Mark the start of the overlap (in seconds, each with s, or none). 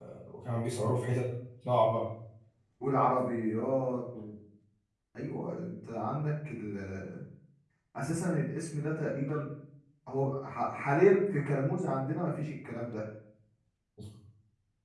none